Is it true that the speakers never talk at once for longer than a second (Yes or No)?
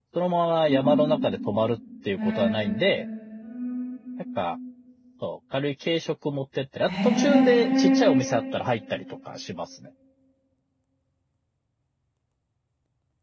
No